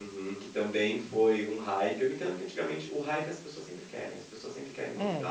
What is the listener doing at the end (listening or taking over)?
listening